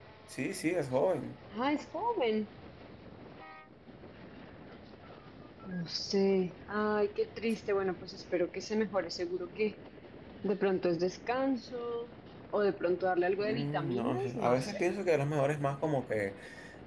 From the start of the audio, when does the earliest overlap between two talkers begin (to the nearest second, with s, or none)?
13 s